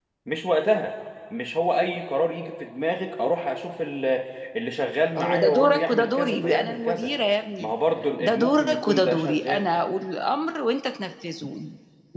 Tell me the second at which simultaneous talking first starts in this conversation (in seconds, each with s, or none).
5.2 s